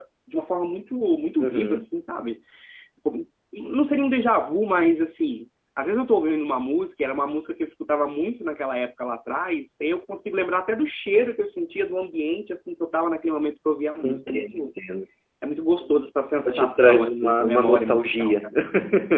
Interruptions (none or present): present